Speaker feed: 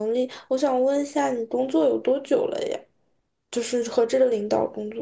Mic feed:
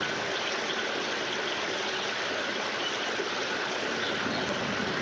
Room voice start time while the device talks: none

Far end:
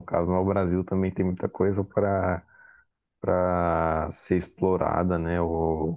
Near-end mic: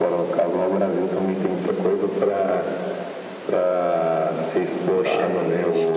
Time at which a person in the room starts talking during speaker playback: 4.9 s

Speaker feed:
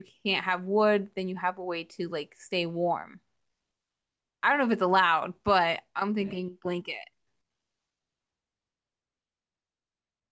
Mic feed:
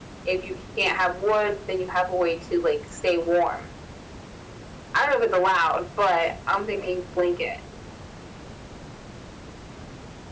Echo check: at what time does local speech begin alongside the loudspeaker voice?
none

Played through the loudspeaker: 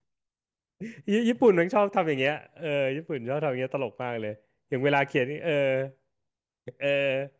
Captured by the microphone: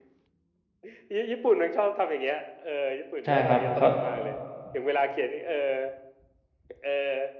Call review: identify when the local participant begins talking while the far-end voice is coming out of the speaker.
3.2 s

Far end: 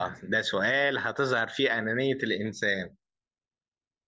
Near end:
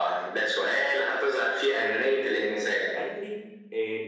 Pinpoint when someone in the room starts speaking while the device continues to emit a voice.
1.7 s

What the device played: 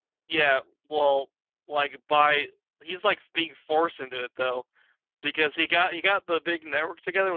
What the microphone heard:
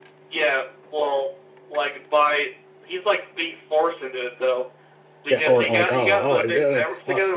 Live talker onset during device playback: 5.3 s

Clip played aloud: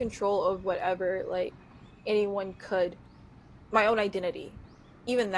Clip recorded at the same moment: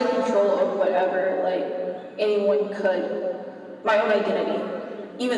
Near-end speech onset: none

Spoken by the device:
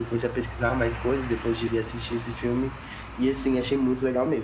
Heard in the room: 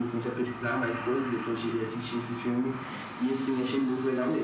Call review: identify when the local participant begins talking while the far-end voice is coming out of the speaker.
none

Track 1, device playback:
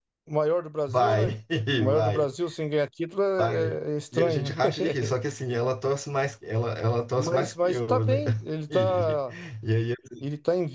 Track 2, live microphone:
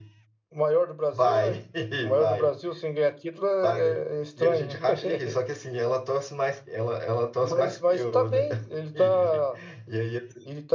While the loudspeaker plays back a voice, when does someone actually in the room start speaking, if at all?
none

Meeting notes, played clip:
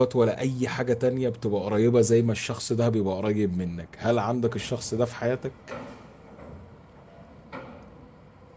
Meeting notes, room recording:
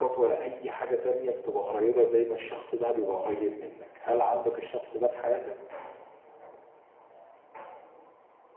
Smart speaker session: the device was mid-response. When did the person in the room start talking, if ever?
none

